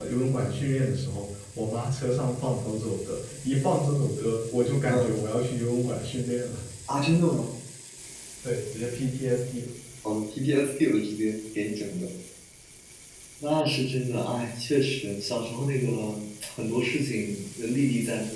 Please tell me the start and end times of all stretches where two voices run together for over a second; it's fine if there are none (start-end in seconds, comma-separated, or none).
none